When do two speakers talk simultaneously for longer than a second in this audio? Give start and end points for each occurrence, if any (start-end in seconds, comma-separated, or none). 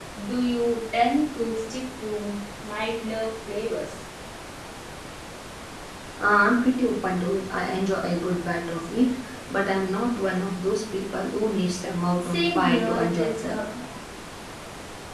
12.2-13.5